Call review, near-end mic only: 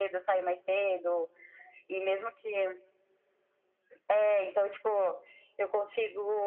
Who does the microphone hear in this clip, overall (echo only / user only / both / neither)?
echo only